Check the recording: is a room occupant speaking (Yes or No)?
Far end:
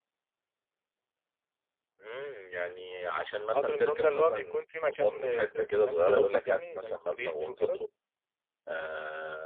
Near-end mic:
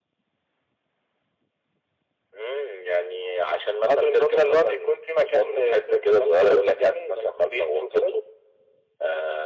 No